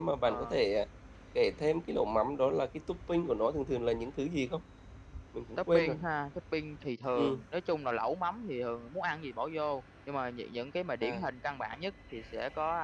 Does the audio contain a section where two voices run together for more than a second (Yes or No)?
No